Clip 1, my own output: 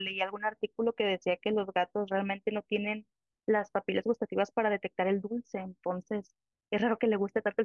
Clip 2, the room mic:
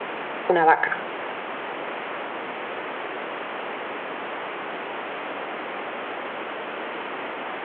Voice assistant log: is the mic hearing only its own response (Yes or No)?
No